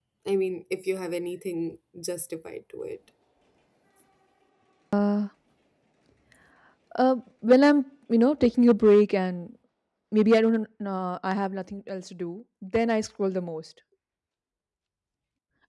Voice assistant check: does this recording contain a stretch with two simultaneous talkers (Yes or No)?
No